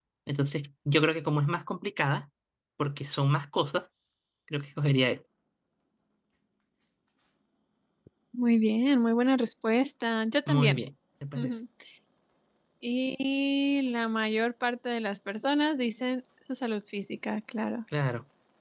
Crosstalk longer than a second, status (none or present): none